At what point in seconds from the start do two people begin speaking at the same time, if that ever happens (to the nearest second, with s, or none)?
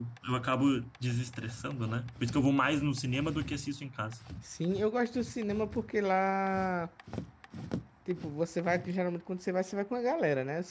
none